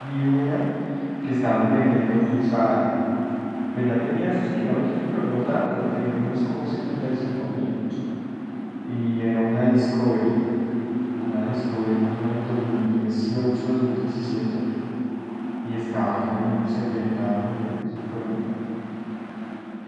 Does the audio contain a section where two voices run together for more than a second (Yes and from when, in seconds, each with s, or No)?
No